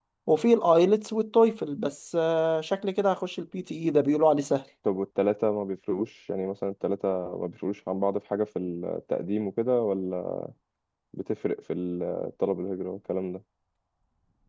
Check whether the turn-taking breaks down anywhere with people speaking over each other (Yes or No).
No